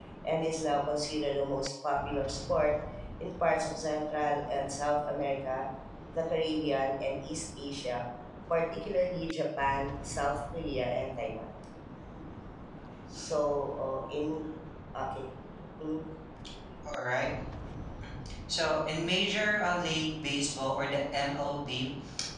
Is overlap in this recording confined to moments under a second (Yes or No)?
Yes